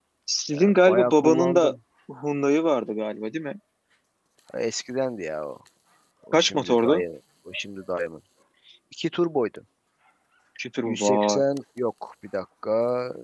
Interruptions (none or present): present